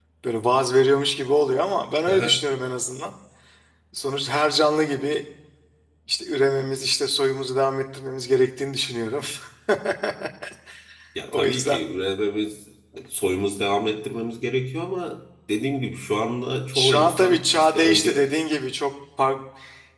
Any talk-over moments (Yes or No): Yes